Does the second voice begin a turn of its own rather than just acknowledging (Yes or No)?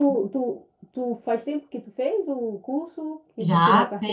Yes